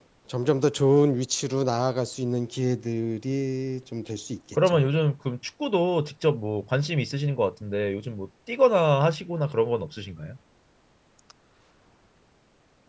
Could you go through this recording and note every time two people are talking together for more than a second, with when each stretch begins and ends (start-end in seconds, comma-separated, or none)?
none